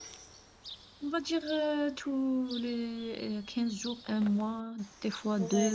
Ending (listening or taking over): taking over